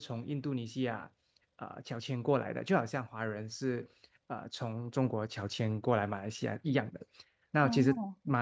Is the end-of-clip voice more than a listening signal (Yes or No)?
No